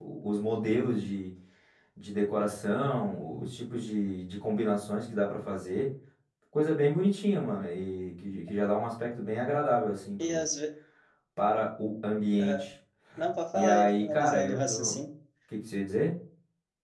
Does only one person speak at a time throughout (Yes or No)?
No